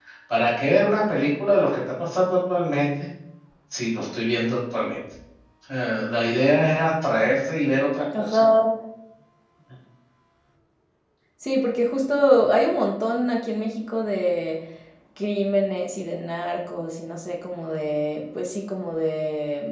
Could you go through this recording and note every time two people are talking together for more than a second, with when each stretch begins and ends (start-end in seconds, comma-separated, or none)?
none